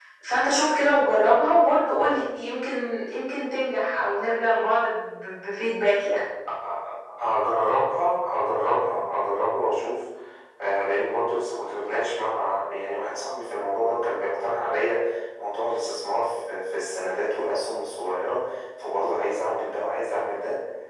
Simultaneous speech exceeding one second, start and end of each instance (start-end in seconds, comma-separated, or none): none